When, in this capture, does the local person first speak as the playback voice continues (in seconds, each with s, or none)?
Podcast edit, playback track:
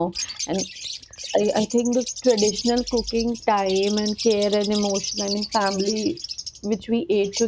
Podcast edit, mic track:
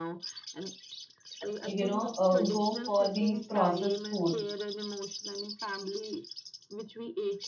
1.6 s